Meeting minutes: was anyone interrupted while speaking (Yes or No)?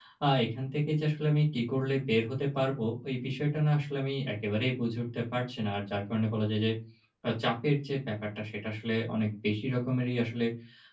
No